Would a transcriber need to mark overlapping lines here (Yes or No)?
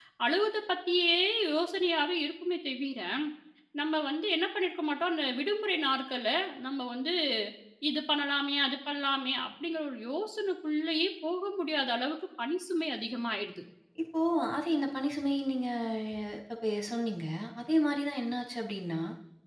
No